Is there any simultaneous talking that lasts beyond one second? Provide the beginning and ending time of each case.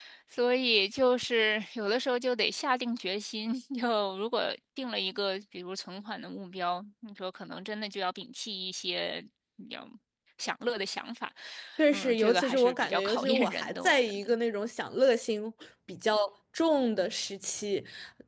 11.9-14.3

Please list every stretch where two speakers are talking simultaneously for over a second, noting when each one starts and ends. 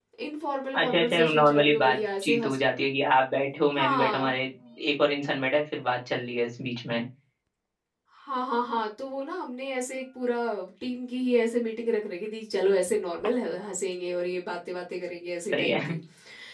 0.8-2.6

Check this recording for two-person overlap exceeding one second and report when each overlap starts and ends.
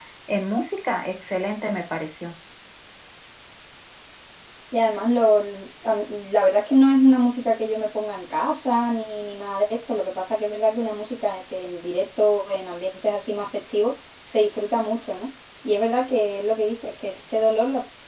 none

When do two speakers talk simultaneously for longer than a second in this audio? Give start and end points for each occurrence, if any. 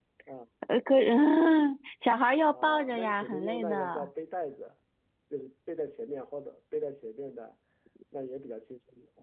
2.5-4.1

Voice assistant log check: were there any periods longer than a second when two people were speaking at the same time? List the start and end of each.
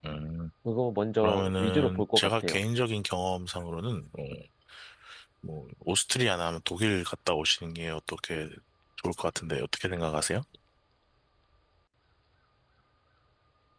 1.2-2.6

